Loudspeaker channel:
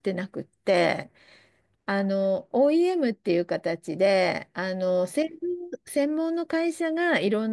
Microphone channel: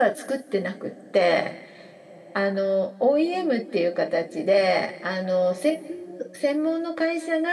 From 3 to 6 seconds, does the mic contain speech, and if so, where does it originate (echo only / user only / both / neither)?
echo only